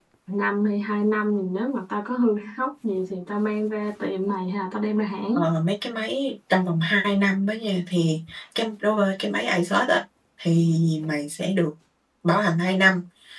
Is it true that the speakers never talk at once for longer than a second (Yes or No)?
Yes